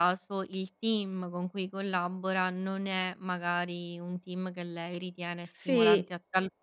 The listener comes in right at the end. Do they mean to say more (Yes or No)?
No